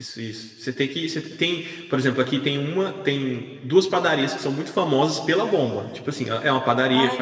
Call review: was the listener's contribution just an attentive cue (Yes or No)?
Yes